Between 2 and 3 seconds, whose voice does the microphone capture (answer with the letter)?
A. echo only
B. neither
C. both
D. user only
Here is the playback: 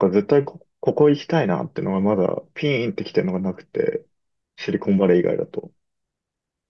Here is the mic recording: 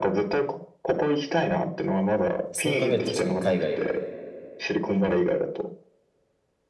C